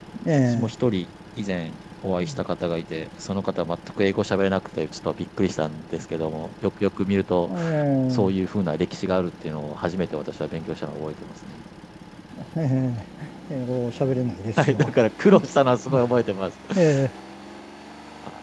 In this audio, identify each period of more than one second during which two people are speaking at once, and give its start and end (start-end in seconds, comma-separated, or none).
none